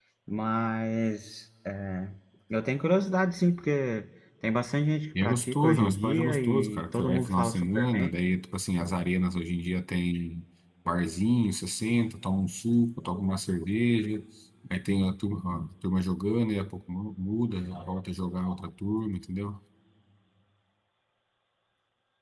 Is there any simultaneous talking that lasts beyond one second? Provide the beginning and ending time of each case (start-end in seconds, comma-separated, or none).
5.2-8.1